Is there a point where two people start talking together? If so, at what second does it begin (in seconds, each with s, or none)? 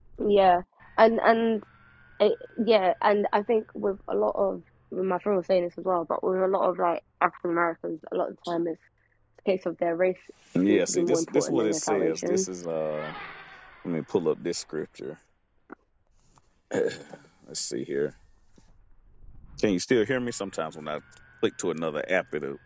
10.7 s